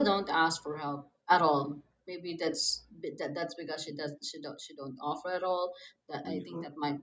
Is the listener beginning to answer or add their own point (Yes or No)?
No